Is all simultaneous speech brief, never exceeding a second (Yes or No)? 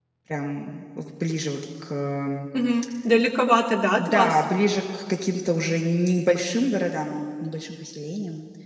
Yes